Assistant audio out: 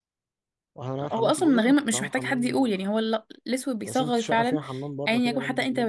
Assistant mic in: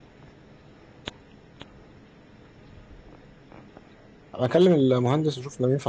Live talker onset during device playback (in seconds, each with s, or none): 4.4 s